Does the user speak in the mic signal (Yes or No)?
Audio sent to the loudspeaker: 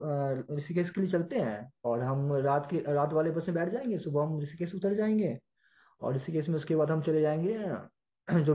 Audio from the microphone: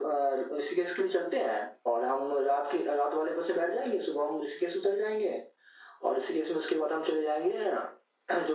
No